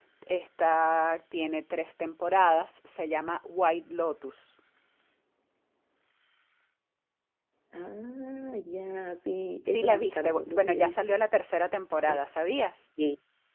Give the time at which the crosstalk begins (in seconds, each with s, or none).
9.7 s